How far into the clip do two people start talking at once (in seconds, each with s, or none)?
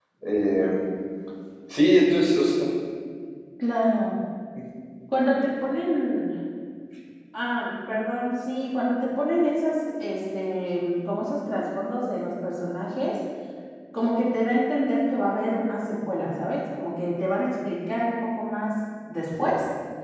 none